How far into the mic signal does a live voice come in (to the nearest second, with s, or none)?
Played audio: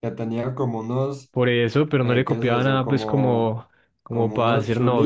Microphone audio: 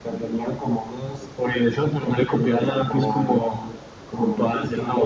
none